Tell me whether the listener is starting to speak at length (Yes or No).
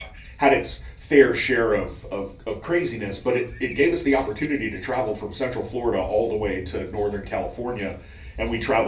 No